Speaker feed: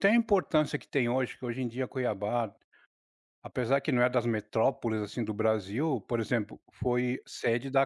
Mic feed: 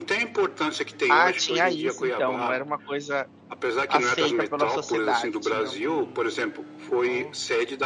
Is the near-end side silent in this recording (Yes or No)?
No